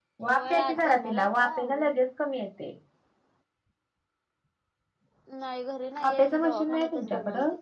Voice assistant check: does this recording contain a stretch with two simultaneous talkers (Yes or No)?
Yes